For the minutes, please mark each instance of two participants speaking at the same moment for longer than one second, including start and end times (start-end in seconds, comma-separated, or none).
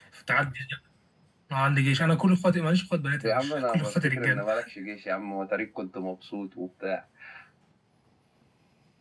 3.2-4.4